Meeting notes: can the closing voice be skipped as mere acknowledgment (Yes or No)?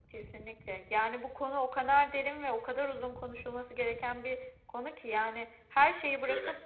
Yes